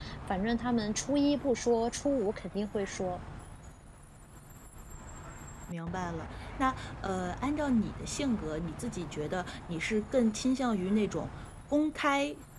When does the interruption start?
none

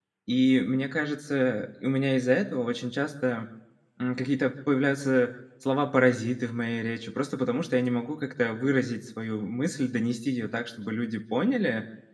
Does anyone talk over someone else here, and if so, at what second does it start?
none

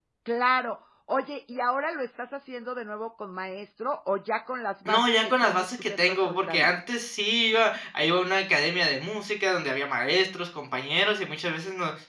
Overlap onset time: 5 s

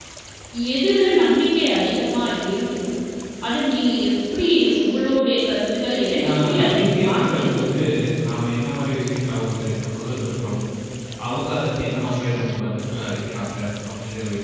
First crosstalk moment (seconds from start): 6 s

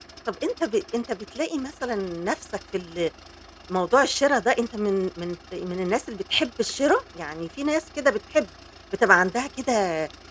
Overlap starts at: none

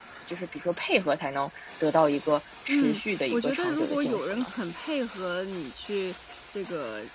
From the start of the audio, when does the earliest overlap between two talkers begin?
3 s

